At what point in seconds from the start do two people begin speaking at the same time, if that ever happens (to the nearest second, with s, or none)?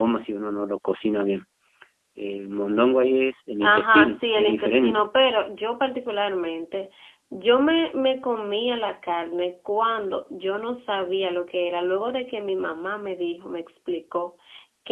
4 s